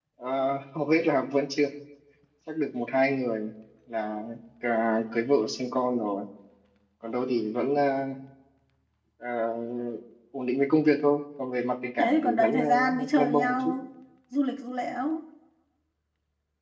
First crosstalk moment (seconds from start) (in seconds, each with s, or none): 12.0 s